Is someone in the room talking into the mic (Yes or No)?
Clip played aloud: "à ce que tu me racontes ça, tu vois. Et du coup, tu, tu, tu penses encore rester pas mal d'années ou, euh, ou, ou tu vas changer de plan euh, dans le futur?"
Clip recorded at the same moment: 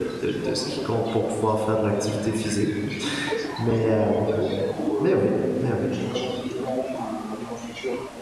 Yes